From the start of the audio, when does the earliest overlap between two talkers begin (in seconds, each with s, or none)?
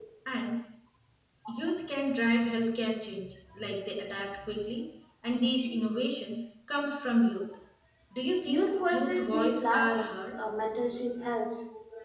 8.5 s